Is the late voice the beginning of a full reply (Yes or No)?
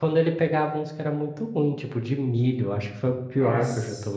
No